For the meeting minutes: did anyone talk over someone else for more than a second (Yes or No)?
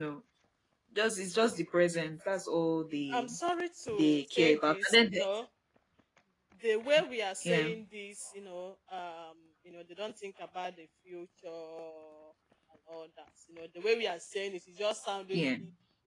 Yes